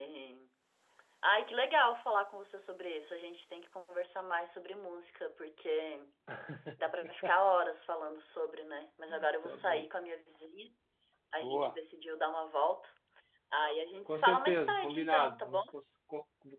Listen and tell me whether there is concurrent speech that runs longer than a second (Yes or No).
Yes